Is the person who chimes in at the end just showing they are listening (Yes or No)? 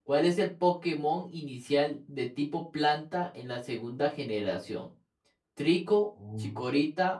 Yes